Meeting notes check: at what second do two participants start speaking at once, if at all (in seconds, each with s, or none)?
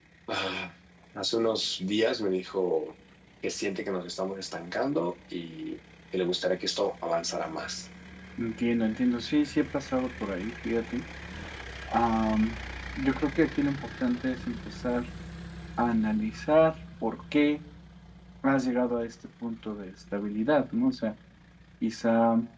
none